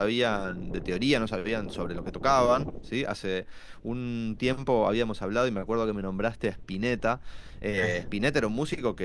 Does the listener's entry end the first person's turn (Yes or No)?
No